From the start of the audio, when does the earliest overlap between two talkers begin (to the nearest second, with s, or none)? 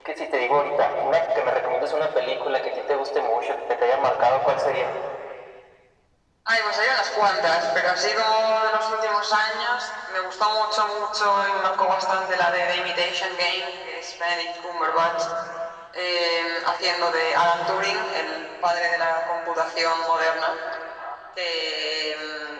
none